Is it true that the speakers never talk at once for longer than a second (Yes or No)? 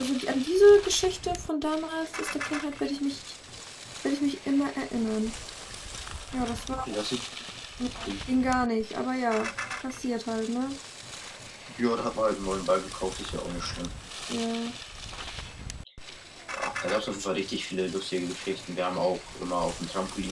Yes